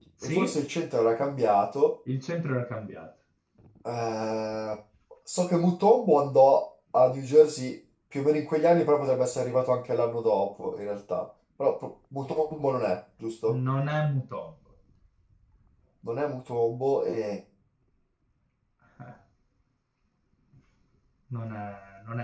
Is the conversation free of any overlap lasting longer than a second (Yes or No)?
Yes